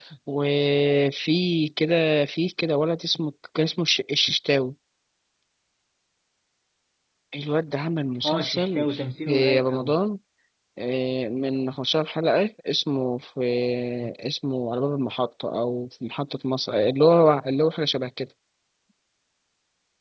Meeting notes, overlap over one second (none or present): present